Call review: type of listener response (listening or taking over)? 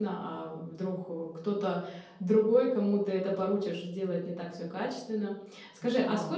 listening